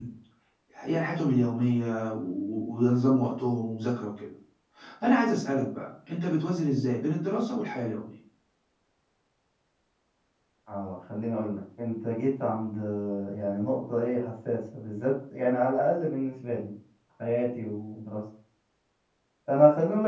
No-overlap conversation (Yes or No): Yes